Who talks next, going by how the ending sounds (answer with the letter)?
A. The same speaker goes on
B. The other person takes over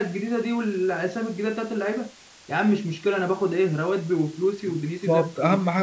B